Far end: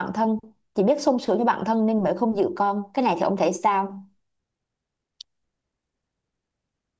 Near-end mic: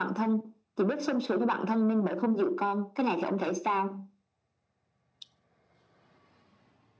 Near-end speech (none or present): none